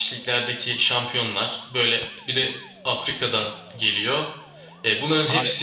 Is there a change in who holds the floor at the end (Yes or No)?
No